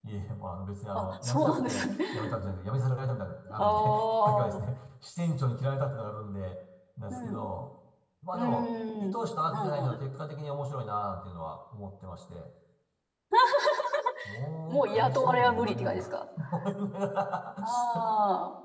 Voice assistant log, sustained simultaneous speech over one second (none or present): present